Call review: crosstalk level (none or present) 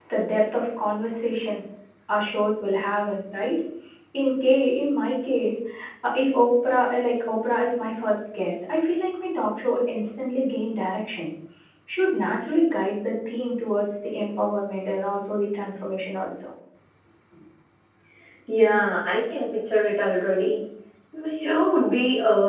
none